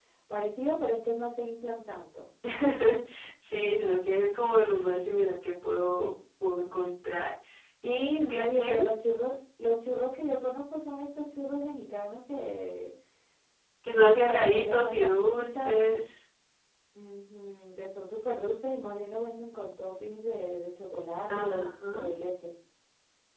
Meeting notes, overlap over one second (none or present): present